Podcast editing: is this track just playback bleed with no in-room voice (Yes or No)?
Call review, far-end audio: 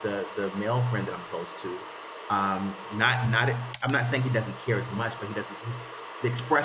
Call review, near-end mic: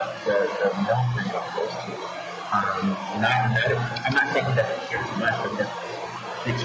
Yes